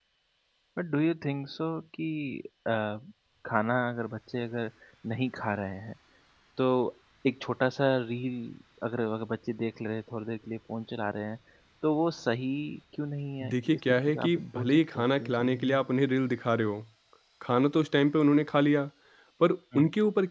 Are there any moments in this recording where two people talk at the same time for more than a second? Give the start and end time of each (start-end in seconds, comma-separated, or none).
13.5-15.8